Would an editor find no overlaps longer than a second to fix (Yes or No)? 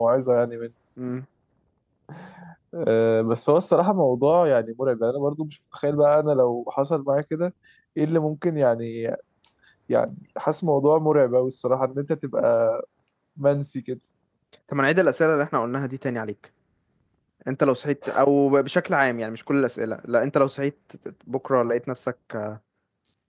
Yes